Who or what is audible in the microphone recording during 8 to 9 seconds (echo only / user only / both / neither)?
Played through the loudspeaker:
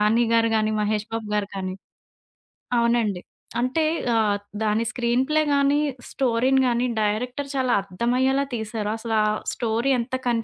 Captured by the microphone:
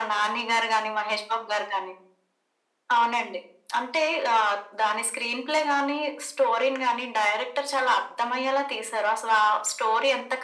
echo only